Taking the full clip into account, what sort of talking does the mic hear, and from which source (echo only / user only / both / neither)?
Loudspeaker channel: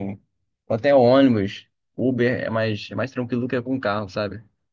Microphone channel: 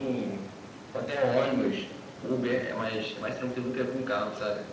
echo only